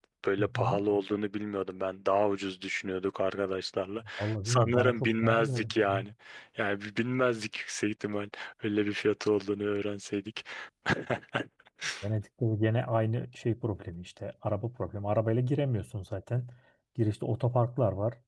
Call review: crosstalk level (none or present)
present